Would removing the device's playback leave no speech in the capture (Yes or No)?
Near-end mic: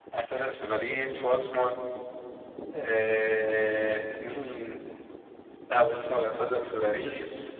Yes